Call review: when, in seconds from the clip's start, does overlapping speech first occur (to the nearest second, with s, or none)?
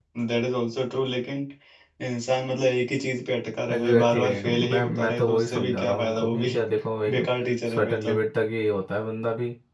4 s